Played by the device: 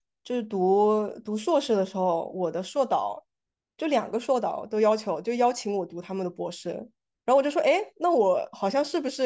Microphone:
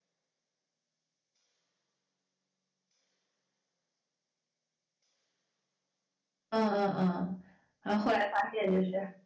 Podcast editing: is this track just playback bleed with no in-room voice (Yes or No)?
No